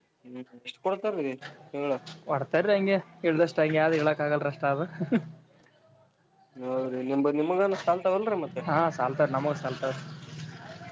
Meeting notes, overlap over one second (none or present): none